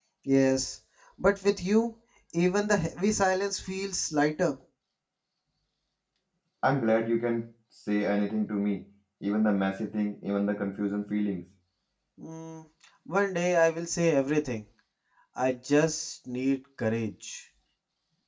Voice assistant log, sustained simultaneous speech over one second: none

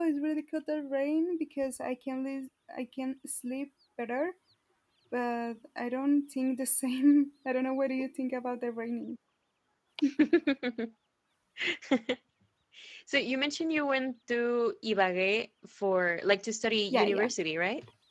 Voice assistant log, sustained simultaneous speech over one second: none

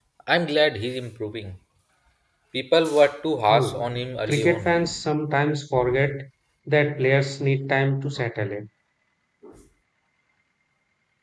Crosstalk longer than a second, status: present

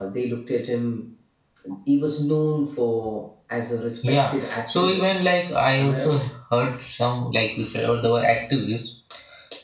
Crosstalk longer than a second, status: present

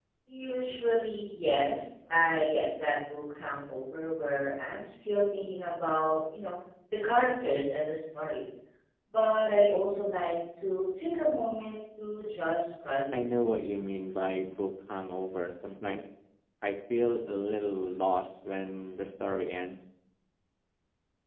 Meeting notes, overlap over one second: none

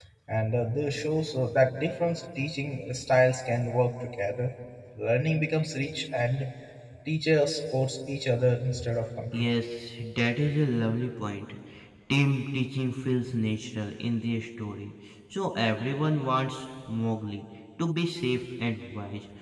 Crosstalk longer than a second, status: none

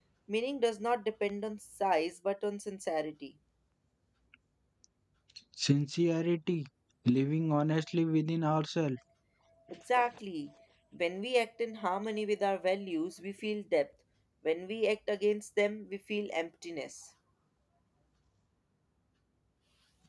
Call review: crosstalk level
none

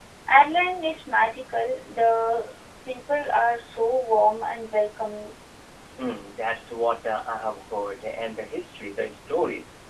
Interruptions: none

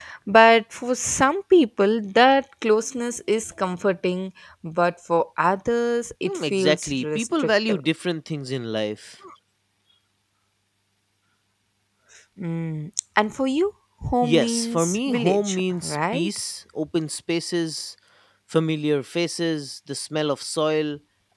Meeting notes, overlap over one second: present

